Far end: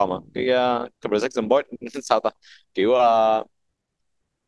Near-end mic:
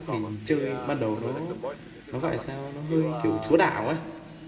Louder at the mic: user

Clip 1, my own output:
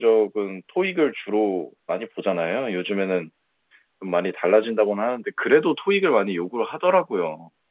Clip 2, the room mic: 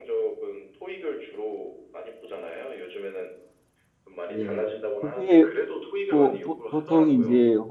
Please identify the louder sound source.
user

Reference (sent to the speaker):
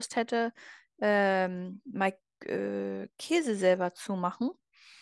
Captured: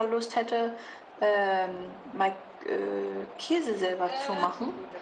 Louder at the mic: echo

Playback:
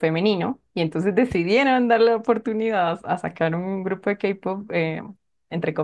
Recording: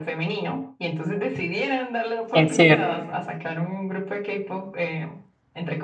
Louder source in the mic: user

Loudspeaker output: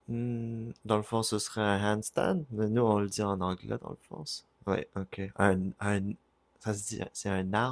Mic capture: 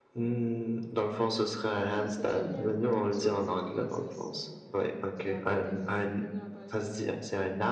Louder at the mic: echo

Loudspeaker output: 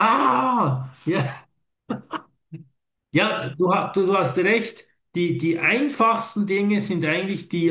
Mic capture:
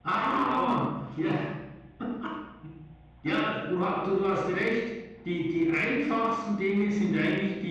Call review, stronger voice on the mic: echo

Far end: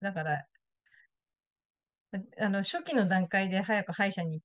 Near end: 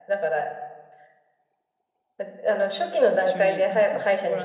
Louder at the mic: echo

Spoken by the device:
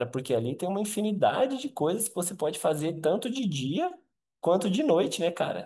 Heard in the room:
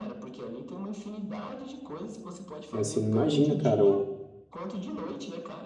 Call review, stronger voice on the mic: user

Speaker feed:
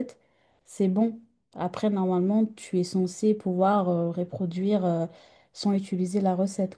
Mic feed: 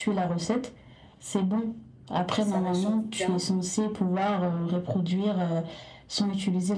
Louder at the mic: echo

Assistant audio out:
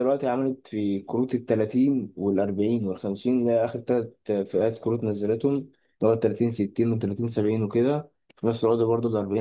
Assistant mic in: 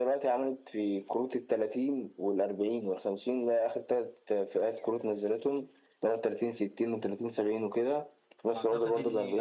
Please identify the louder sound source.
echo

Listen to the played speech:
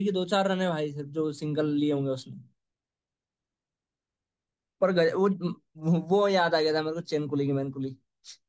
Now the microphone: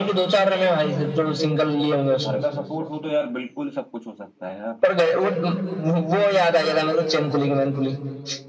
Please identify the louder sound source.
echo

